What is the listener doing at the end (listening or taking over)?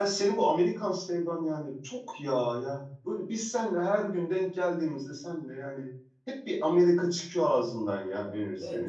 taking over